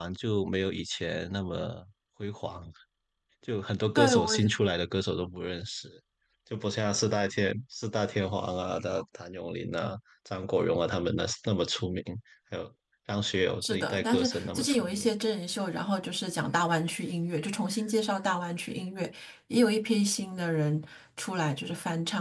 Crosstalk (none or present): present